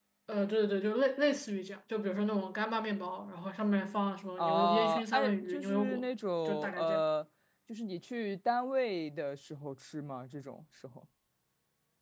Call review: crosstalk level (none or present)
present